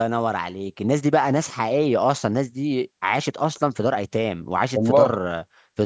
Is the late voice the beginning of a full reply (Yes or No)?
No